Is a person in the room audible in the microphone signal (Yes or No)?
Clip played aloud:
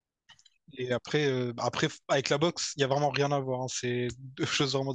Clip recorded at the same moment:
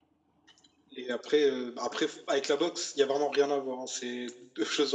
No